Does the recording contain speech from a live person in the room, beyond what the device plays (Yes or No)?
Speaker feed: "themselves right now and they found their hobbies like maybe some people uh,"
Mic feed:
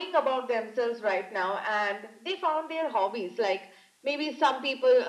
No